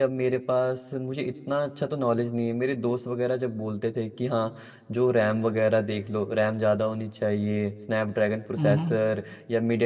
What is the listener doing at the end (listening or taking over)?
listening